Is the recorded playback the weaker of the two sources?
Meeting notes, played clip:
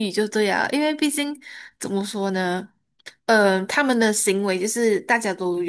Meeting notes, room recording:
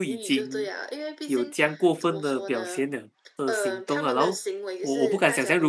Yes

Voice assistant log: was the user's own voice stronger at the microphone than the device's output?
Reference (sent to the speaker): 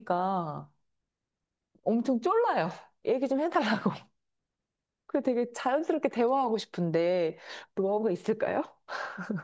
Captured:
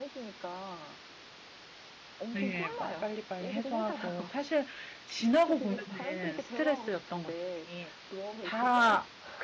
Yes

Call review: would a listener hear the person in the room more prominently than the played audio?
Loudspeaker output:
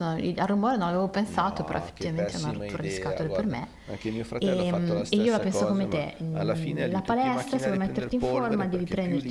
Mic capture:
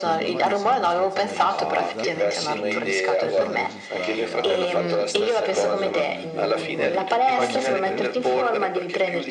No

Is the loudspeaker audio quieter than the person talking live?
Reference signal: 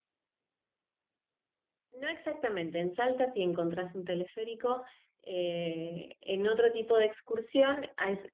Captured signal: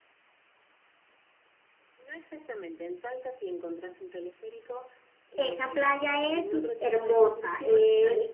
Yes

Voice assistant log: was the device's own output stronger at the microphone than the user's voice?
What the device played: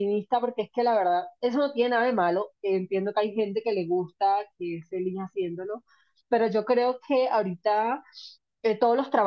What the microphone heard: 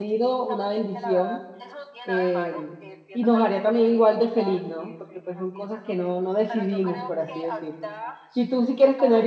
No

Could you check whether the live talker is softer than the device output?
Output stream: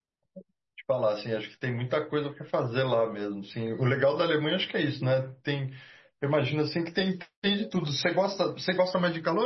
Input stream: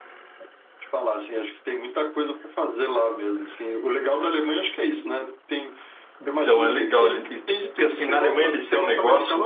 No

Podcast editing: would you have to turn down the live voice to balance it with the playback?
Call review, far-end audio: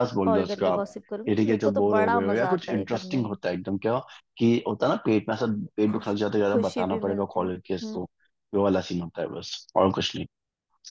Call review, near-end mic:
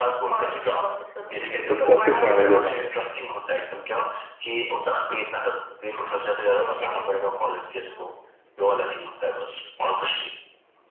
Yes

